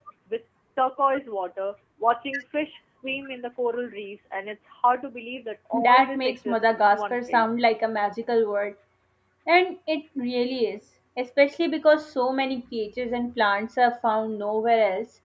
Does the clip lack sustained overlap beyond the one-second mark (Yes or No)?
No